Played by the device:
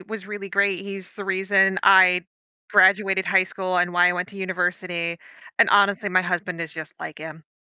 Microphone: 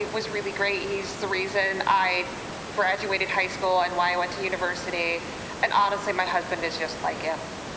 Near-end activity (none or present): none